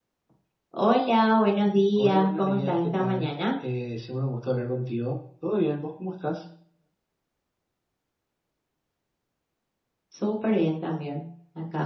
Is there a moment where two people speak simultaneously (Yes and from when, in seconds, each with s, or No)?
Yes, from 1.9 s